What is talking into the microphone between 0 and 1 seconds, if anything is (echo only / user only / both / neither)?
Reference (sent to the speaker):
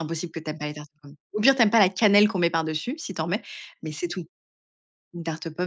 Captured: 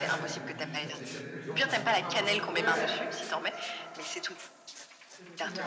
both